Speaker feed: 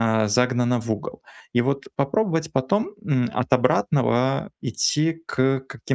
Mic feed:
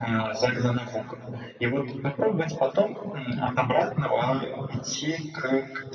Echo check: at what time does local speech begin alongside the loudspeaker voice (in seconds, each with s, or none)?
none